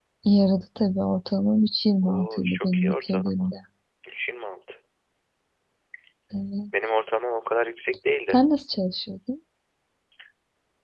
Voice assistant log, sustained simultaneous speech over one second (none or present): present